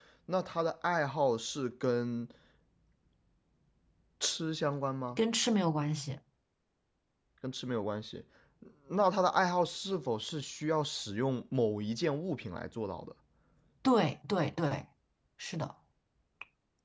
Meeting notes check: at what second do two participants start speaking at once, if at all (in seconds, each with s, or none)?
none